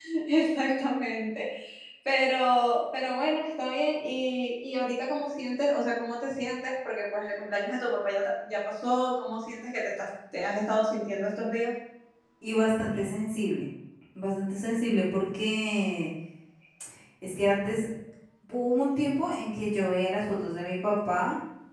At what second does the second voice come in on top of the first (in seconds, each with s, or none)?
none